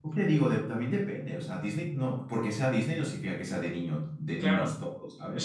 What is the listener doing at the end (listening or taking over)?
taking over